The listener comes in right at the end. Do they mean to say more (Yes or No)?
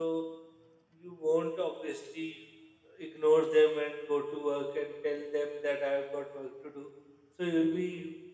No